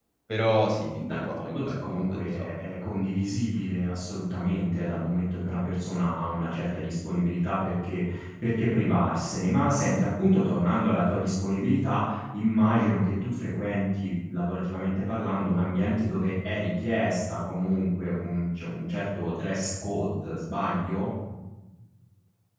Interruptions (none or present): present